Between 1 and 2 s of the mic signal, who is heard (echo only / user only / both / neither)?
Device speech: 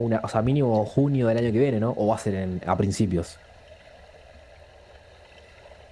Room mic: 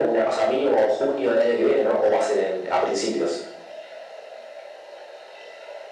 echo only